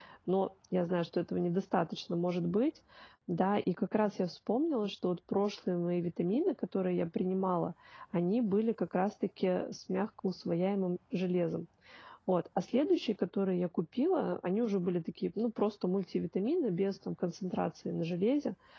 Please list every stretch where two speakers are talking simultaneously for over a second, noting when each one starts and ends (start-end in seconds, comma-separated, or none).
none